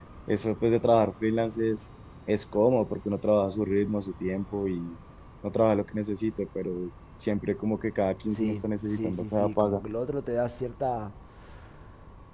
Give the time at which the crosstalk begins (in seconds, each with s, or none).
8.3 s